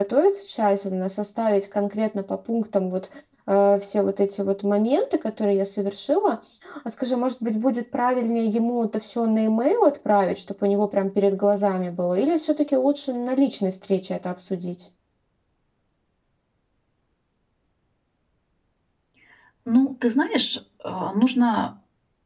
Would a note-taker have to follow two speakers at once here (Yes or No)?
No